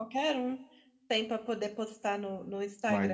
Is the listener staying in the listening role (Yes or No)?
No